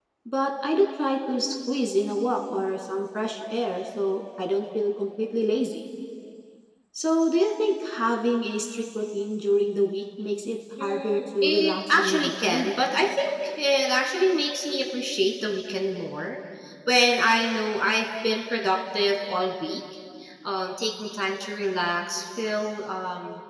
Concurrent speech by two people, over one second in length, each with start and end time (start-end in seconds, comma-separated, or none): 10.8-12.7